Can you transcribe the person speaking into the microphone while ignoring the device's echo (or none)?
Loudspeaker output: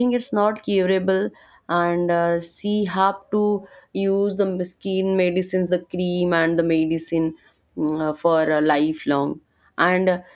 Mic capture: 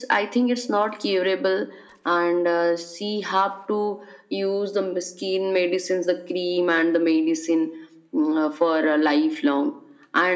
none